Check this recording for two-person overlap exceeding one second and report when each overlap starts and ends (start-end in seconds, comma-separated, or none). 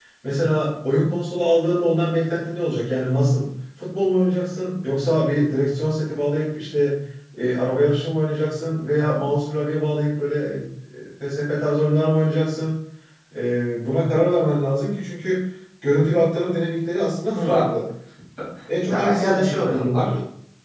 18.9-20.1